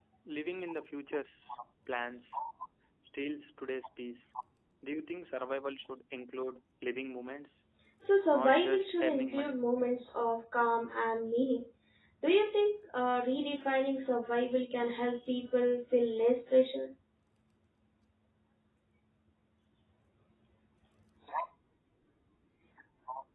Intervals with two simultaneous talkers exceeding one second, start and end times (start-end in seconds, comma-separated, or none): 8.3-9.6